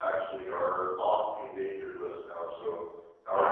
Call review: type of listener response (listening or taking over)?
taking over